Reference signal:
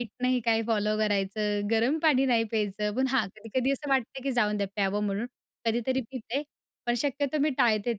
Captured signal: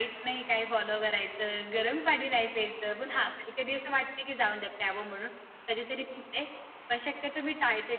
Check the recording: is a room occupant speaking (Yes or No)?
No